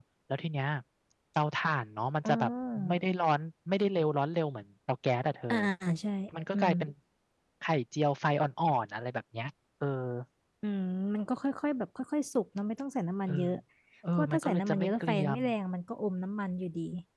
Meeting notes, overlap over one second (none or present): present